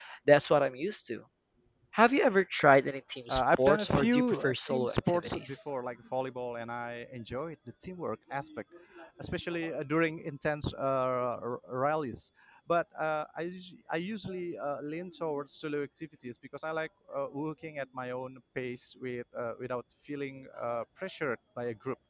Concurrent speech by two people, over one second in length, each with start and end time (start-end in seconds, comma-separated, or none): 3.3-5.6